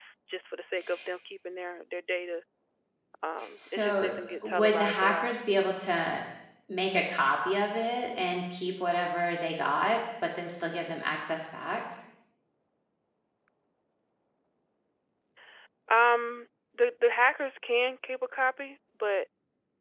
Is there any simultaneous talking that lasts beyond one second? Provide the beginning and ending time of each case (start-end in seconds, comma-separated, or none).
3.7-5.3